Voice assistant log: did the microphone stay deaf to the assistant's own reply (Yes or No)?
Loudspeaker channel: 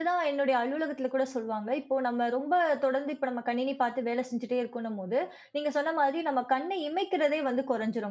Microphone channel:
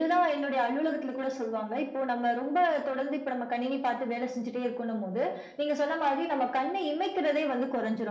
No